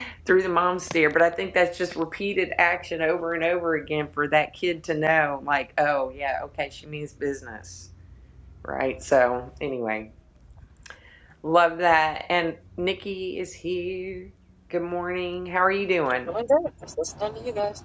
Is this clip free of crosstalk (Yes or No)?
Yes